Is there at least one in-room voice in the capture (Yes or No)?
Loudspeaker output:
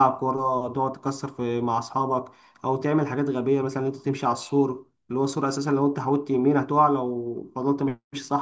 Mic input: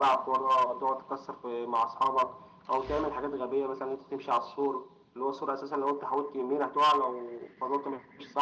No